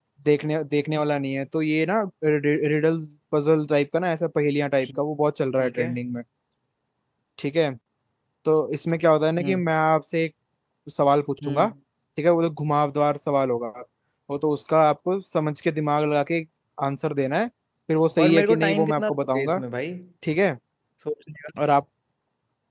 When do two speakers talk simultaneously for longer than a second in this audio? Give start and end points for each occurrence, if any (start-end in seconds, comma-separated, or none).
18.2-19.6